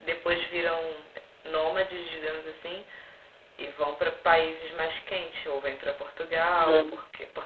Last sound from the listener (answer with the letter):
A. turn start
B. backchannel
B